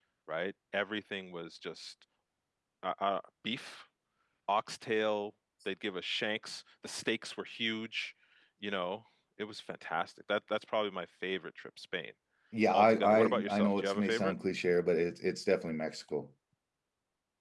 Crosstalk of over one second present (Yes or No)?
Yes